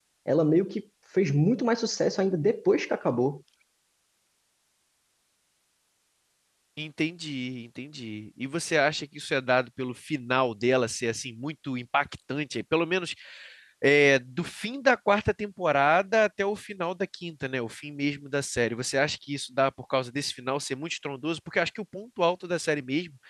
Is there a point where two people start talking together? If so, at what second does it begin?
none

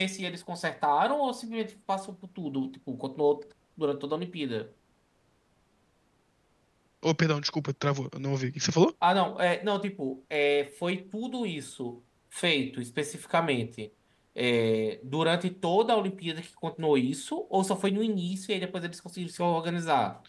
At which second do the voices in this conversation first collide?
none

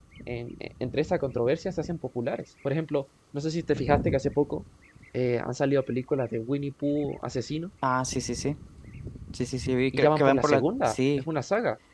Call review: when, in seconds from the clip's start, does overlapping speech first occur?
9.9 s

